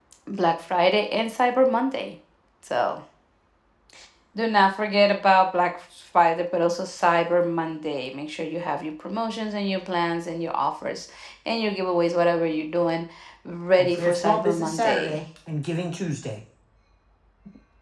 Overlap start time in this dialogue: 13.8 s

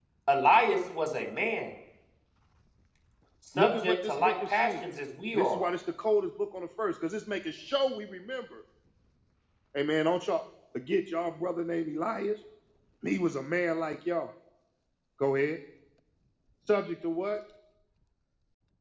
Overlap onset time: 3.6 s

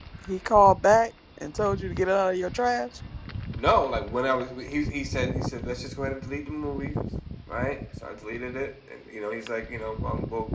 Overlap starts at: none

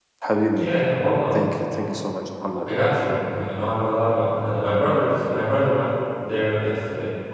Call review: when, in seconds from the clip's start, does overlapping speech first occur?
none

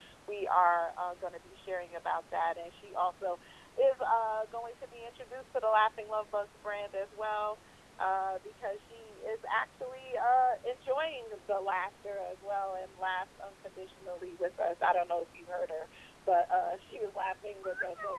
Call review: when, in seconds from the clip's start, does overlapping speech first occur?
none

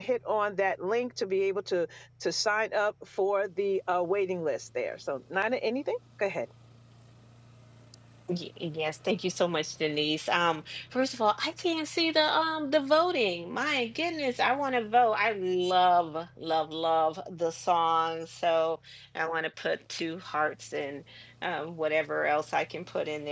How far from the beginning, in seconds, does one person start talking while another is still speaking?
none

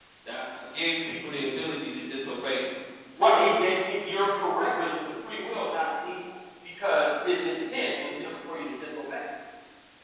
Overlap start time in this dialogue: none

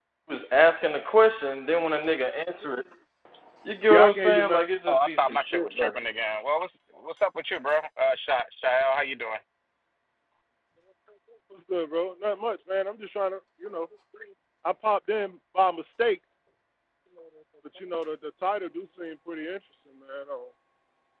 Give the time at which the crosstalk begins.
3.9 s

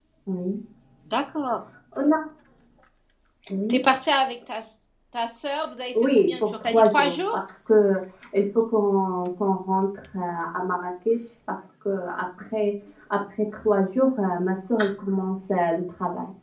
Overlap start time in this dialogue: 5.9 s

